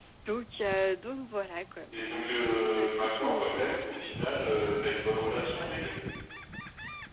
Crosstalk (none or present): present